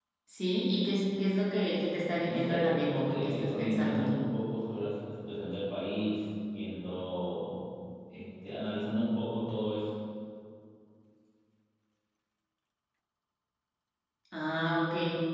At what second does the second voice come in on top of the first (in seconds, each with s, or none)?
2.2 s